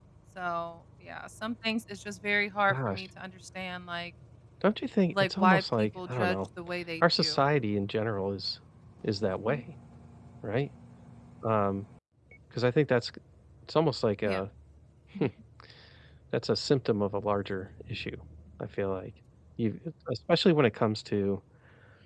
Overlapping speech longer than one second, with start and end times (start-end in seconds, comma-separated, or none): 5.1-6.4